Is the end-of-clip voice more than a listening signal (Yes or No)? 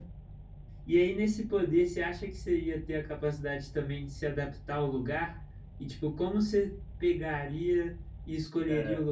No